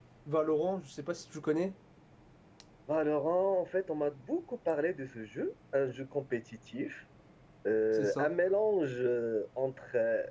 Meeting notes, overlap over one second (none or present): none